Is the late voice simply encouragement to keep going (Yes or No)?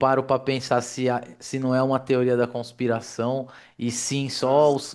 Yes